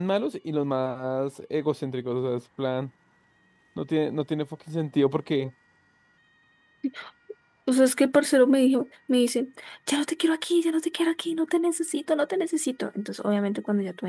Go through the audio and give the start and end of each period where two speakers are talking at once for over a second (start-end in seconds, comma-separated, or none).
none